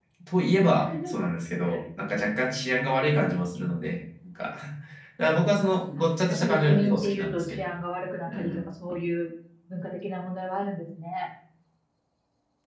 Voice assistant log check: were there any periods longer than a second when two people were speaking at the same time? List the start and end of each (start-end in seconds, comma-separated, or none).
6.0-7.7